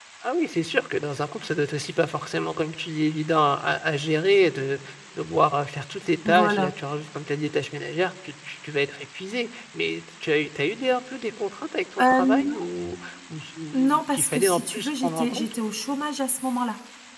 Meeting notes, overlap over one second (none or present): present